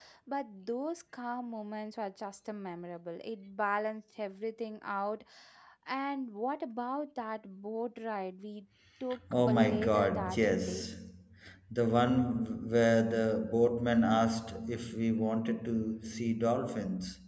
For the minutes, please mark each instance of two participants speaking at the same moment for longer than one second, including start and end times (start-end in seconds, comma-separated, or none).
9.5-10.9